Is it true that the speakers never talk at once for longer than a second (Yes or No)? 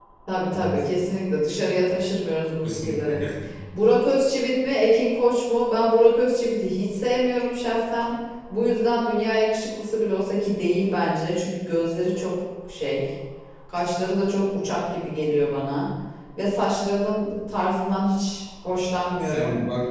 Yes